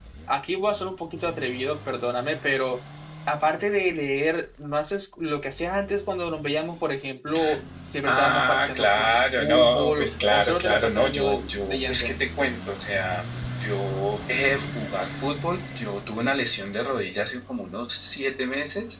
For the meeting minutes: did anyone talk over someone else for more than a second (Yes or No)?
Yes